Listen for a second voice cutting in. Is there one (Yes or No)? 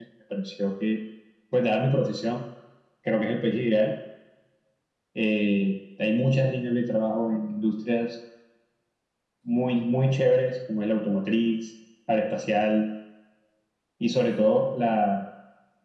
No